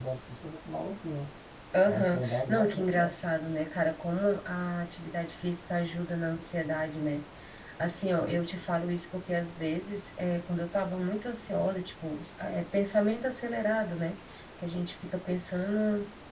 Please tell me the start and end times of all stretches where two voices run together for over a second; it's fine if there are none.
1.9-3.1

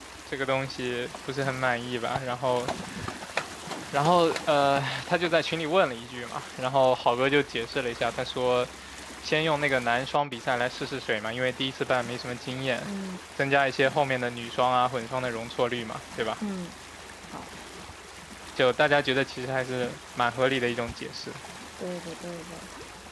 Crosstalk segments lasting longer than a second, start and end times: none

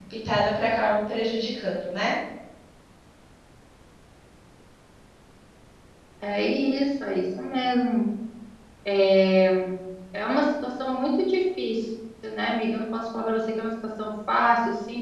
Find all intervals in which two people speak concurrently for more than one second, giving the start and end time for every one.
none

